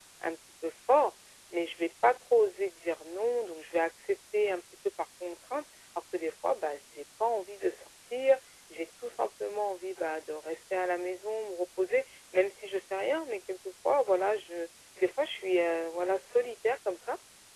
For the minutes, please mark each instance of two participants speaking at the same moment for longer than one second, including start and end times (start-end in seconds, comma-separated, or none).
none